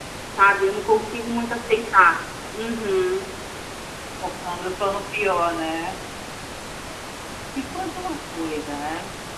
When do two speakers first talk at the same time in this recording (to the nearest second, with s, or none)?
none